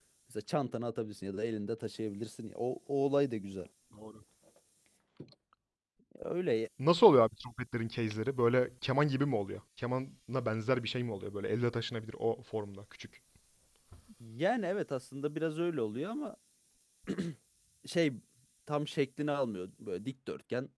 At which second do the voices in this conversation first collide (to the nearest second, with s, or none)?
none